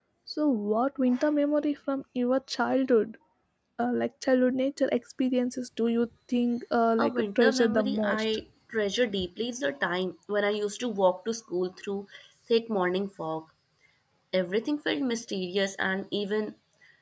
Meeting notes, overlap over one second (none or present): present